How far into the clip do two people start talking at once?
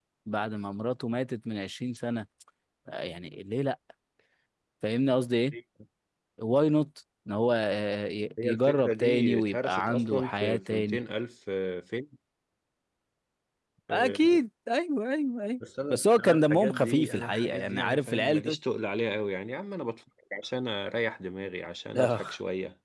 8.4 s

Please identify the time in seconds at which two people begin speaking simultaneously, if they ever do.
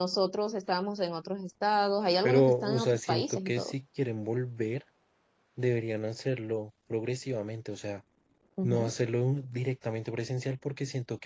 2.2 s

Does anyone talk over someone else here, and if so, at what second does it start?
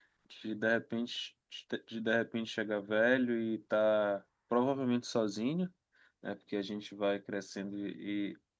none

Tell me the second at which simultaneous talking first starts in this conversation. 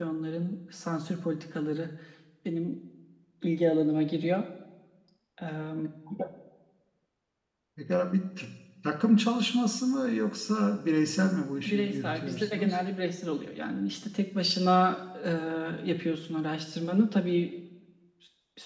11.6 s

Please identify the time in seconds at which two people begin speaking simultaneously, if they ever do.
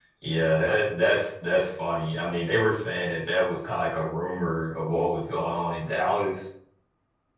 none

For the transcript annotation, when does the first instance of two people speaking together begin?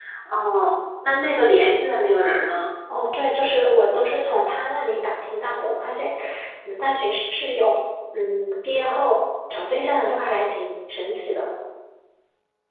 none

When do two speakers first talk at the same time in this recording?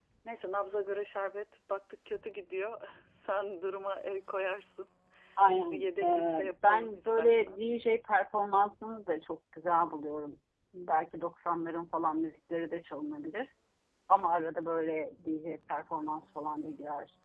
5.5 s

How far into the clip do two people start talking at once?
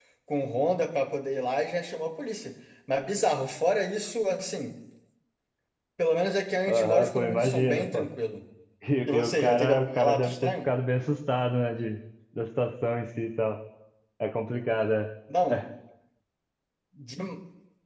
6.7 s

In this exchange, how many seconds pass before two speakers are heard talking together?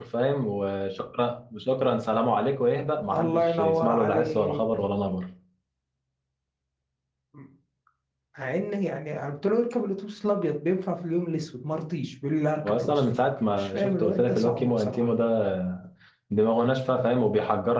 3.1 s

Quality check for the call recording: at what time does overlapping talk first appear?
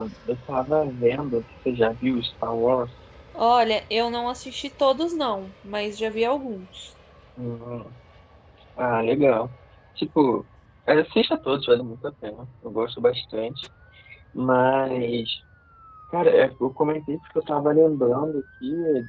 none

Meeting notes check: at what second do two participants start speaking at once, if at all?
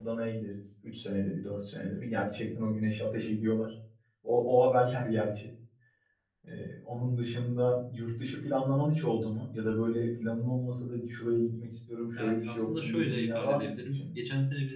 12.2 s

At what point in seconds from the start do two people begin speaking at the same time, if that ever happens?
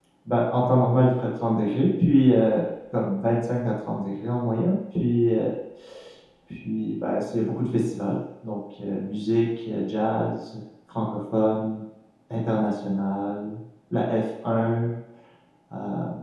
none

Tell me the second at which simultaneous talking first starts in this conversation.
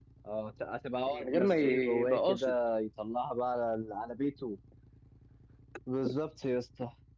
1.1 s

